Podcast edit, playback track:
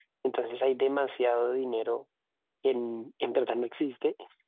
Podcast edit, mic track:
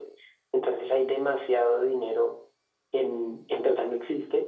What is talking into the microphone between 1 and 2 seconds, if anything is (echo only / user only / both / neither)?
echo only